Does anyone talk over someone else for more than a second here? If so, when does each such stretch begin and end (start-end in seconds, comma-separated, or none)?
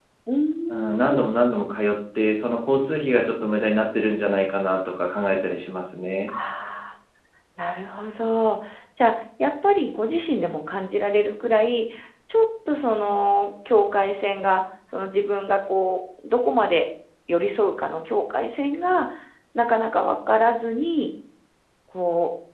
none